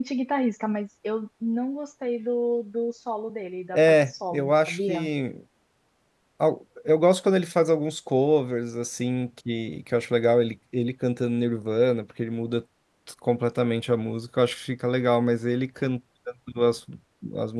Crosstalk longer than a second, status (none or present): present